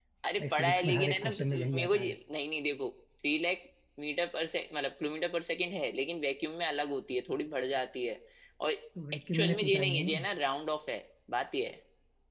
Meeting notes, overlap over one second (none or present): present